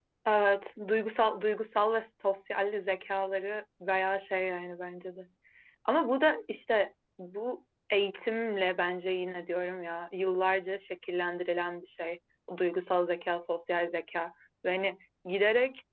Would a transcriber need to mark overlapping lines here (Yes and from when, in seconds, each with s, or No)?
No